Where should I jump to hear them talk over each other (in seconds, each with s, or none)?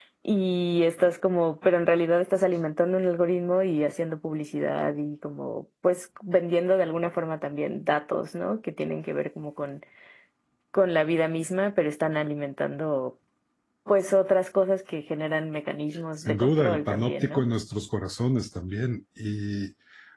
16.2 s